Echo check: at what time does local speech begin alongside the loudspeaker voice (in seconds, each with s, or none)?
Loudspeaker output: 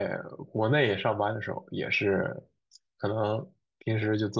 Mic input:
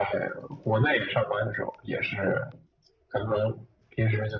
none